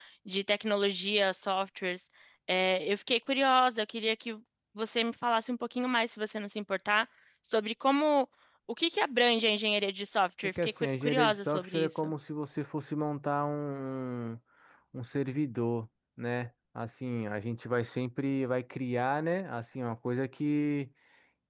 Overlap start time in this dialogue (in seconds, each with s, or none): 10.4 s